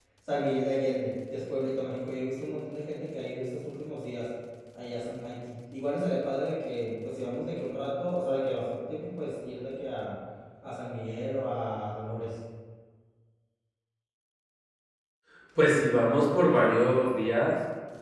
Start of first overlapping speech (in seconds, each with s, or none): none